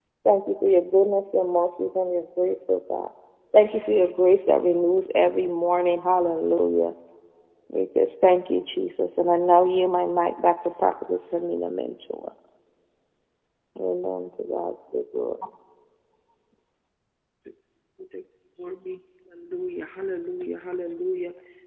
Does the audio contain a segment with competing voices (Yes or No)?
No